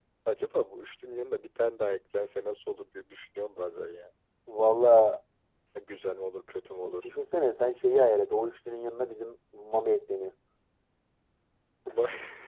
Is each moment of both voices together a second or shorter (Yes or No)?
Yes